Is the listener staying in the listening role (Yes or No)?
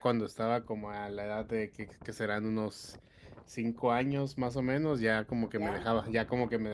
Yes